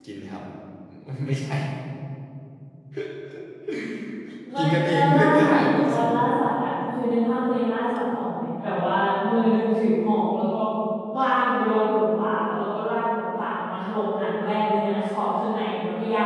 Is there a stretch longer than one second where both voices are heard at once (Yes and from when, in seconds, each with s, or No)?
Yes, from 4.6 s